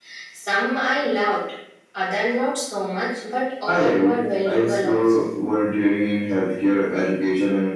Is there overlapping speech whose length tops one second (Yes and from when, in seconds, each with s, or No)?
Yes, from 3.7 s